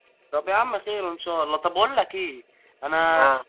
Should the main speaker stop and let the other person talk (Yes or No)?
No